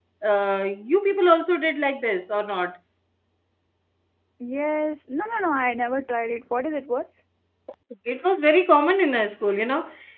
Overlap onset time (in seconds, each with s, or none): none